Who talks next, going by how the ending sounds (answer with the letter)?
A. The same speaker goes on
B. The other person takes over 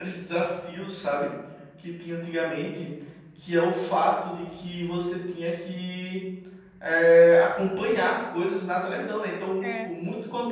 A